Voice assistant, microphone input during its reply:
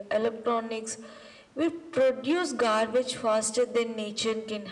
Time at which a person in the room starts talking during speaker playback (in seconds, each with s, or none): none